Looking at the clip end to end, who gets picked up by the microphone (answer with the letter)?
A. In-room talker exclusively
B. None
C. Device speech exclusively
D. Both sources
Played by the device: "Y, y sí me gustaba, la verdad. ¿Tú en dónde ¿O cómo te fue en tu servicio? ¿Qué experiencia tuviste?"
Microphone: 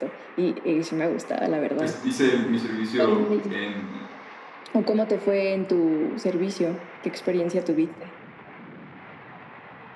D